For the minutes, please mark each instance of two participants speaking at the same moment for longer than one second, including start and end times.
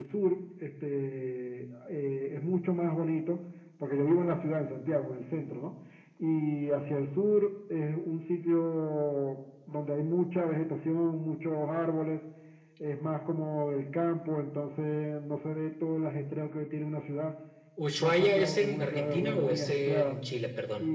18.0-20.2

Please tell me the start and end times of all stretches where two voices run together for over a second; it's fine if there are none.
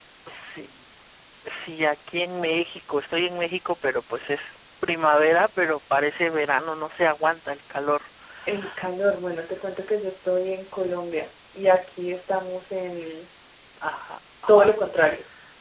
none

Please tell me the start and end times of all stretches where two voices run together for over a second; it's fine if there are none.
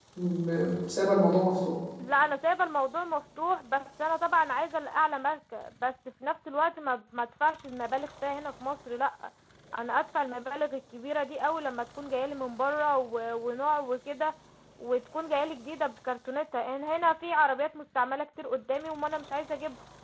none

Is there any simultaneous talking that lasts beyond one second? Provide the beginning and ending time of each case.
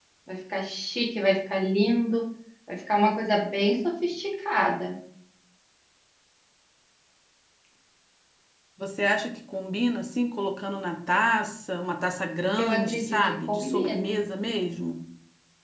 12.6-14.2

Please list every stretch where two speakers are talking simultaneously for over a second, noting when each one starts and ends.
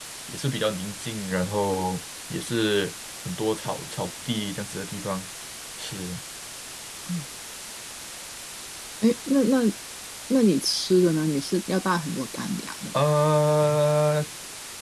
none

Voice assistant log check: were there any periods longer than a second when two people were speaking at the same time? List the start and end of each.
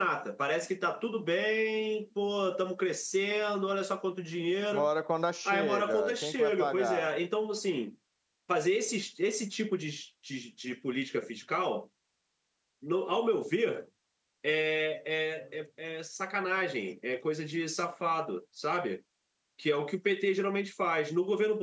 5.5-7.1

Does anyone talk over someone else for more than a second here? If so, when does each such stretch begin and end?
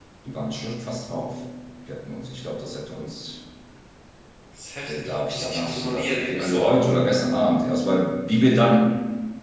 4.9-6.6

